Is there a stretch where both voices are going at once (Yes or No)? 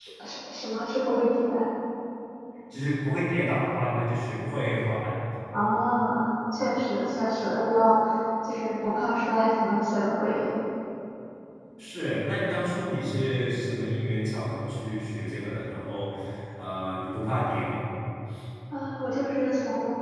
No